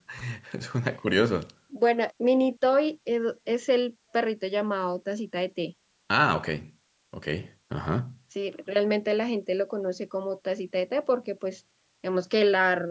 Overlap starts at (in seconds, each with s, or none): none